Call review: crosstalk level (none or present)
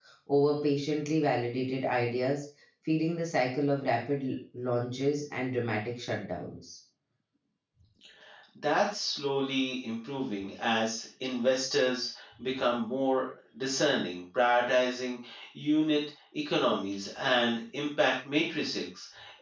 none